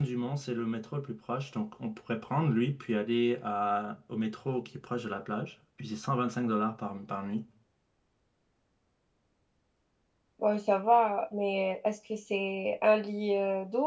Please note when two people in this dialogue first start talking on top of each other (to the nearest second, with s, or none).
none